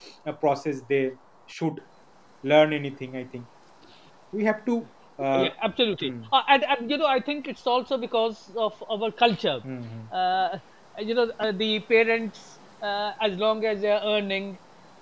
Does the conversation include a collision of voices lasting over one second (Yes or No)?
No